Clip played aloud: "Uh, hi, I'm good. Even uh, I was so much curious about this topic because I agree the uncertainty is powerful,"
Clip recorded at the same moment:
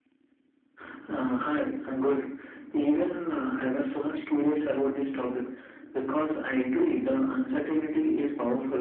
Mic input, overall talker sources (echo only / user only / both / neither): echo only